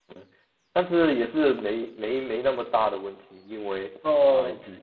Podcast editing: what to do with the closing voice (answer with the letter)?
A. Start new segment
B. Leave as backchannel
B